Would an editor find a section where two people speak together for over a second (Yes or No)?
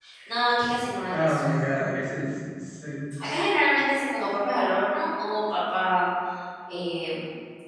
No